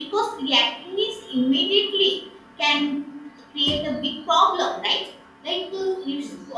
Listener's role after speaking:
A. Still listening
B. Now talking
A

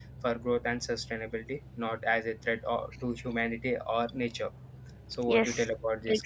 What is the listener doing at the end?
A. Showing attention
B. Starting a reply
B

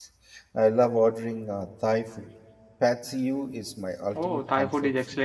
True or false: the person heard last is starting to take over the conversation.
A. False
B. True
B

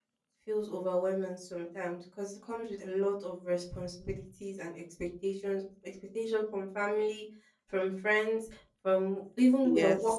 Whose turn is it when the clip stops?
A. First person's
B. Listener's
A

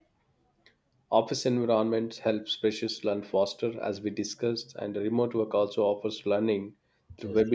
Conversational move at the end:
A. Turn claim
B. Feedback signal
B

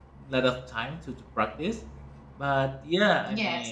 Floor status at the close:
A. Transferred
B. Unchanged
B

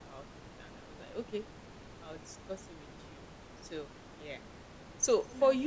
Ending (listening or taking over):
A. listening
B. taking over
A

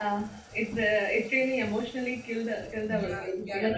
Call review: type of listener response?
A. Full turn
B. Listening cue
A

